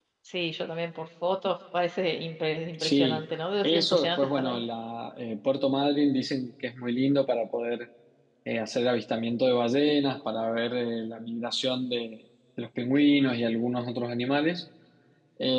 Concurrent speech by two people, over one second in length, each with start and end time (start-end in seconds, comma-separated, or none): 2.8-4.6